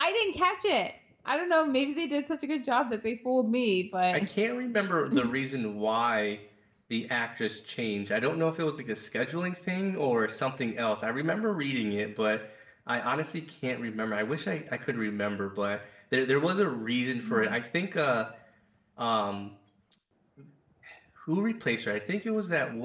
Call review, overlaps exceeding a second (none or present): none